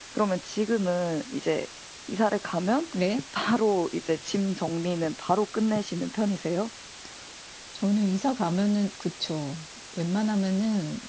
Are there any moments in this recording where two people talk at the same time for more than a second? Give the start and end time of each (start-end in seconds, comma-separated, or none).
none